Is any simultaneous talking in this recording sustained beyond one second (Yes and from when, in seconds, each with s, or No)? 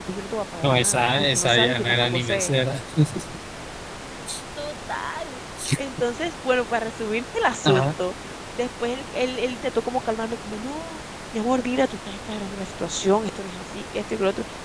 Yes, from 0.6 s